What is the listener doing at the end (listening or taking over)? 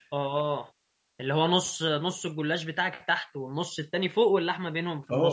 taking over